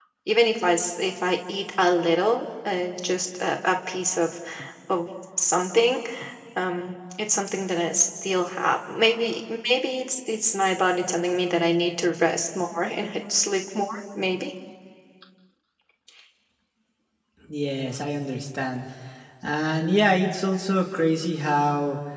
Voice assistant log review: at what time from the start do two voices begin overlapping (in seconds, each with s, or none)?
none